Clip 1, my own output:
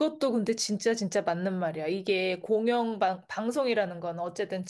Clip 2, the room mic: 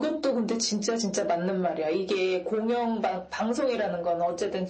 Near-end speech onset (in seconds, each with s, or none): none